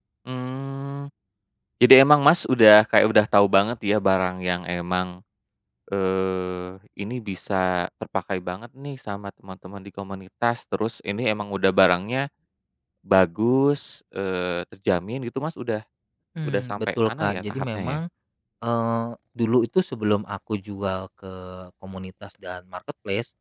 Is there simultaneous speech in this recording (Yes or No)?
Yes